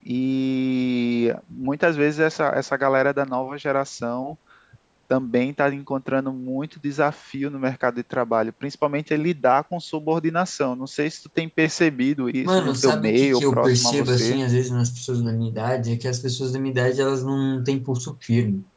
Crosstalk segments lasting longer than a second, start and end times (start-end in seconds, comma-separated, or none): 12.4-14.4